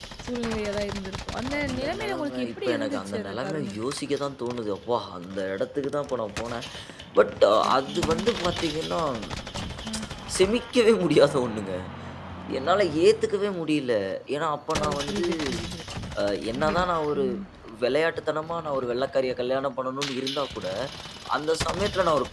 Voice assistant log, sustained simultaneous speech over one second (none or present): present